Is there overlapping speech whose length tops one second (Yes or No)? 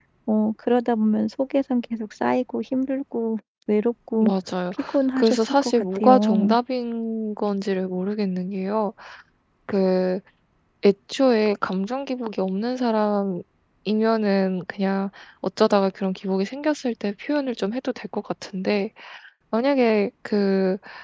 Yes